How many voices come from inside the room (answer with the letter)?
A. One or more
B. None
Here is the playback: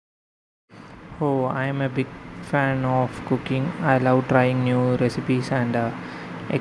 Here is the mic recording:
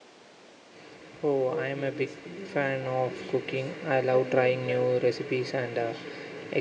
A